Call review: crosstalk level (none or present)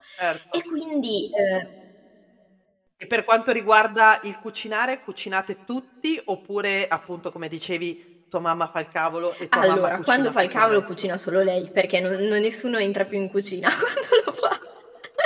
present